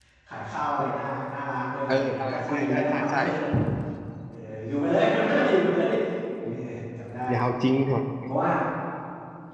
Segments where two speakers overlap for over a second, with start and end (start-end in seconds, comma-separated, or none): 1.9-3.2